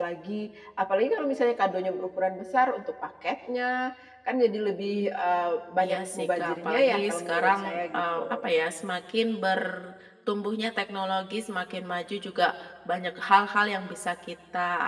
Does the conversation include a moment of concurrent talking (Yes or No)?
Yes